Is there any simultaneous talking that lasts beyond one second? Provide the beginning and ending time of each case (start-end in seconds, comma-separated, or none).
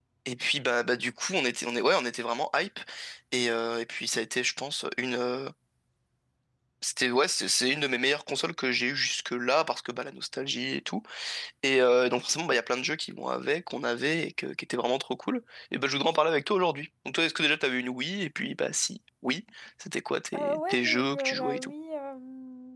20.3-21.7